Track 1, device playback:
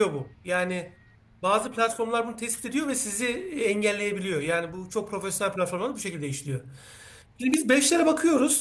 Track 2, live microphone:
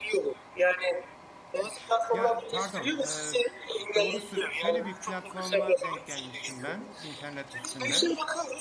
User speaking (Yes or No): Yes